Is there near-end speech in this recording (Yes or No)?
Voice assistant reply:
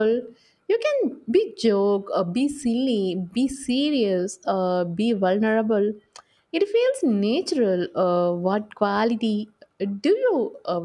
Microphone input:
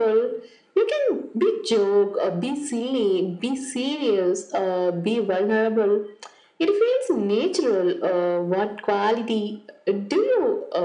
No